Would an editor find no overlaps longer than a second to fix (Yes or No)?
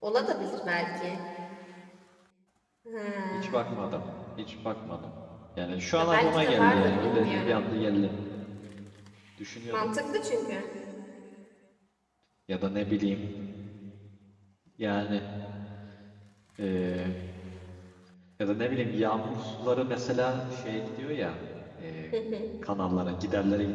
No